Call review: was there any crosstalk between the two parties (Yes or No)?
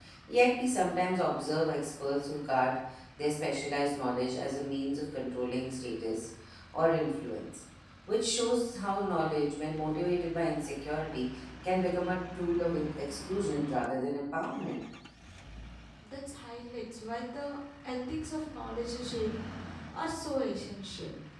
No